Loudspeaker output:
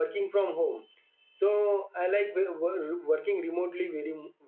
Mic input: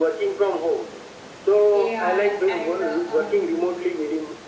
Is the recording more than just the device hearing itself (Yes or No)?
Yes